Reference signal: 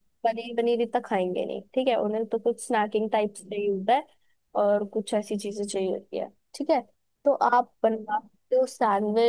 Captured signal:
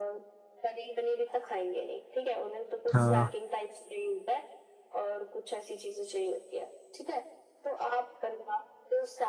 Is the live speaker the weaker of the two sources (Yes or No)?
No